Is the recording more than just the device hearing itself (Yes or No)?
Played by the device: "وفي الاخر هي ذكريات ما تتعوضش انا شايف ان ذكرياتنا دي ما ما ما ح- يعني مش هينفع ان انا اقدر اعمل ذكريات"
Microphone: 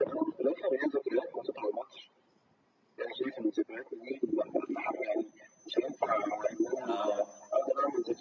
Yes